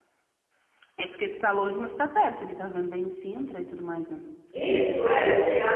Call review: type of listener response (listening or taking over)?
taking over